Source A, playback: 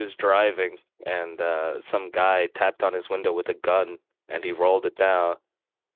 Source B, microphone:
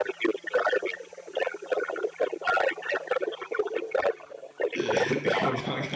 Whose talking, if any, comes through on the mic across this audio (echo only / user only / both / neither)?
both